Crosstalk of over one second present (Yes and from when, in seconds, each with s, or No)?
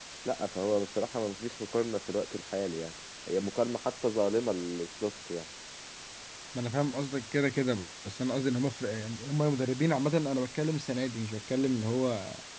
No